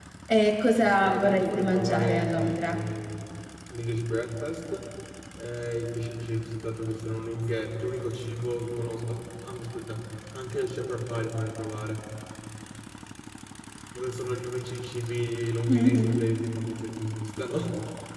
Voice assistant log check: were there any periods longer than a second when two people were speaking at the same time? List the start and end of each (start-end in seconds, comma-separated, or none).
0.8-2.8